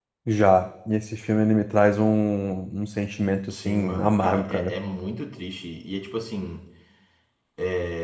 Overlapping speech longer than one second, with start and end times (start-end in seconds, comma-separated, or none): 3.5-4.7